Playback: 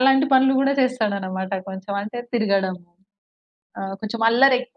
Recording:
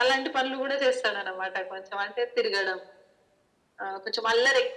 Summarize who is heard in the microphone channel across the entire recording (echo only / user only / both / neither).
echo only